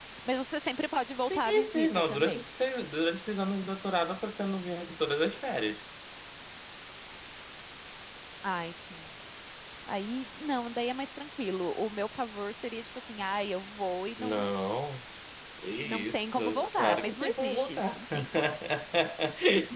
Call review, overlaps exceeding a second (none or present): present